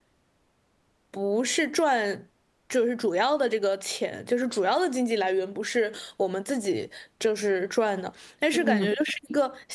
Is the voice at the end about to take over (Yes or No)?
No